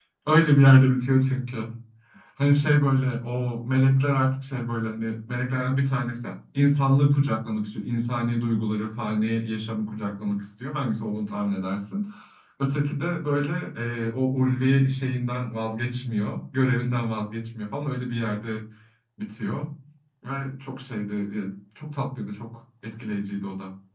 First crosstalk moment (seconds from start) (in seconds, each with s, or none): none